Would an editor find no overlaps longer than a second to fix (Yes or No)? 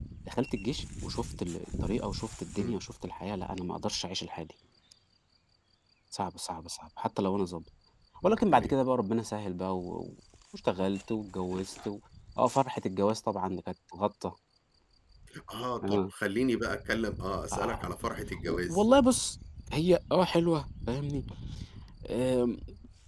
Yes